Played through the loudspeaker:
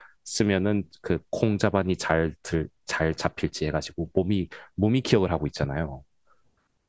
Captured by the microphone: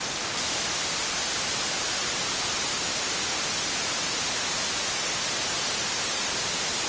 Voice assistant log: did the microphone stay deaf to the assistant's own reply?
Yes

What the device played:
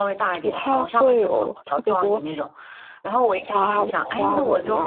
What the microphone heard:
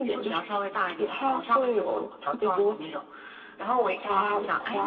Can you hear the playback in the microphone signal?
Yes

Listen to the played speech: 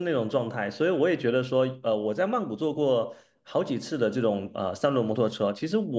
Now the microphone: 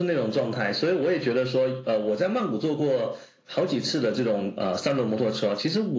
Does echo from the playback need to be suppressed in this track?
Yes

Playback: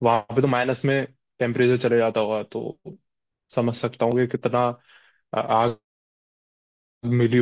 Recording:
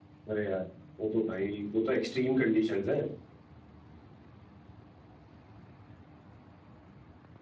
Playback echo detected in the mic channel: No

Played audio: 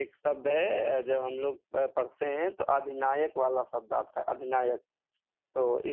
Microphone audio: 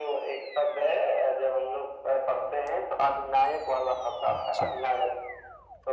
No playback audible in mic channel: No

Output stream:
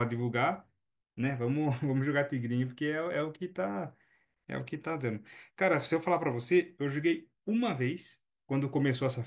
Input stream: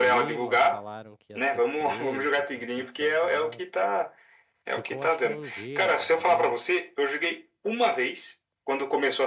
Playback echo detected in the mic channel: Yes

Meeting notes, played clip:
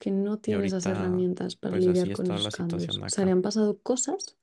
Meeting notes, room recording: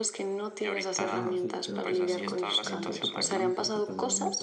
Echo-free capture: No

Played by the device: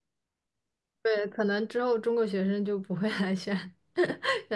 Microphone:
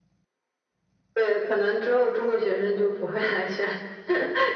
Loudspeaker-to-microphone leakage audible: Yes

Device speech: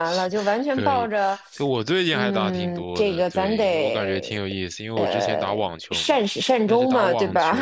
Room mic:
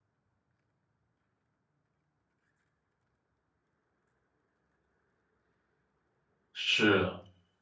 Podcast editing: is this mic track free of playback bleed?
Yes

